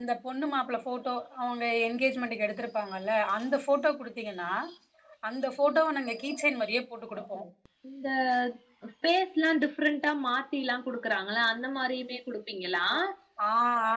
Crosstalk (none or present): none